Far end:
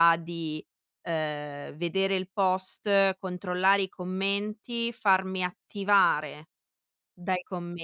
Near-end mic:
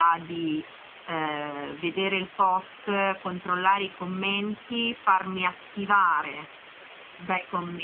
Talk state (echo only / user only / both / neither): echo only